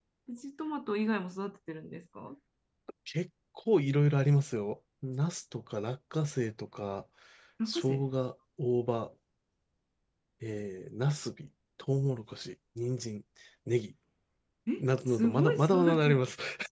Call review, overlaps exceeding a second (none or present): present